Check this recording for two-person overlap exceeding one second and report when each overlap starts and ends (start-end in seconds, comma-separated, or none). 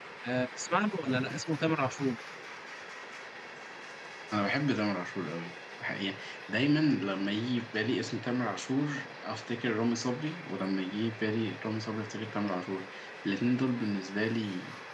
none